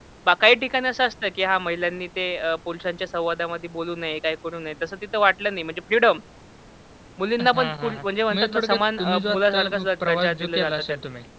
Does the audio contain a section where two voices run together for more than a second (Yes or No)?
Yes